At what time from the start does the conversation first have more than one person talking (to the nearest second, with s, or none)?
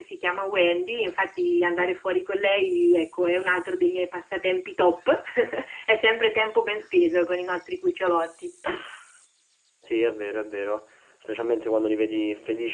none